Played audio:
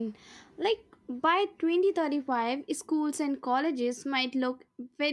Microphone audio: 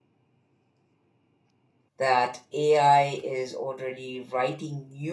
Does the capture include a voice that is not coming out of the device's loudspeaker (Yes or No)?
Yes